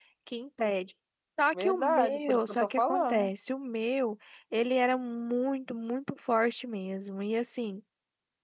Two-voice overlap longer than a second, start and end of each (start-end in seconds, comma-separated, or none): 1.6-3.3